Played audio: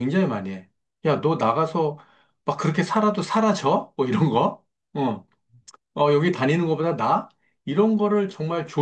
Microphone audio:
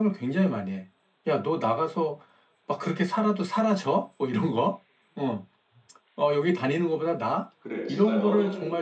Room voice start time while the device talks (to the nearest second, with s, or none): 8 s